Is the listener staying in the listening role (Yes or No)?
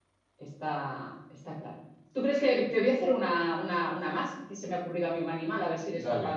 Yes